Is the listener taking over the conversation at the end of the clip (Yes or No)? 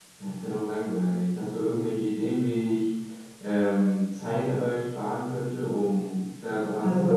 Yes